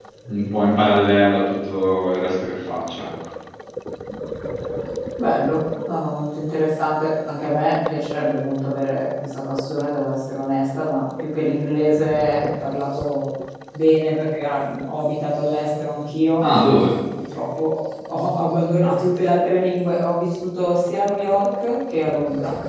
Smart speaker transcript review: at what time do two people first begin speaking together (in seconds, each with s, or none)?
none